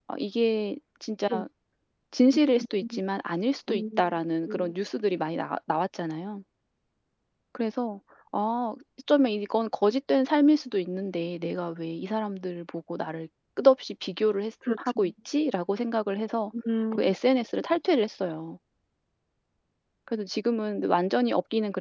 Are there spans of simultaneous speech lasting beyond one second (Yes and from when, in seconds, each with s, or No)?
No